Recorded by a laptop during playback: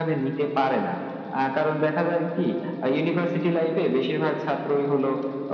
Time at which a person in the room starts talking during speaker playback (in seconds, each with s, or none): none